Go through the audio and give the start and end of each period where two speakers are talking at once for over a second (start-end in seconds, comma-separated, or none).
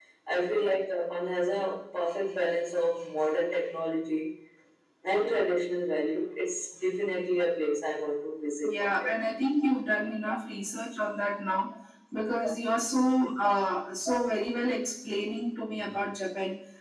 none